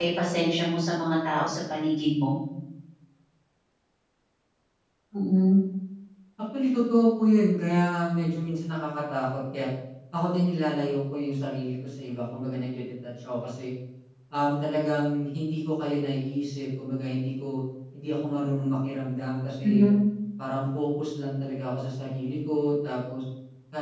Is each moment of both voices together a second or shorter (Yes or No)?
Yes